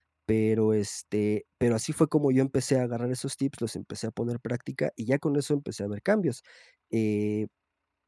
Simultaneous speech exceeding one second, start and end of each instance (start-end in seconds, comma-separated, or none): none